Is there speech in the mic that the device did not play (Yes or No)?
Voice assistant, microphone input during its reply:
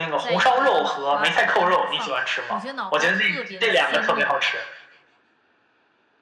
Yes